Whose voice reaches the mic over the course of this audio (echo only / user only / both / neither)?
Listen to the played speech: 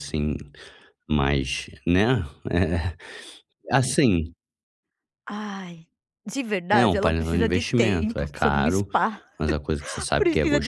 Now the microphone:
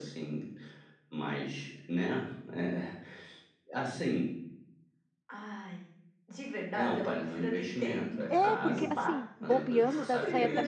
both